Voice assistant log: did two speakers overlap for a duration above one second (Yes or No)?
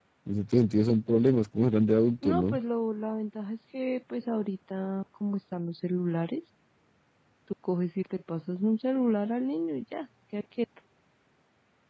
No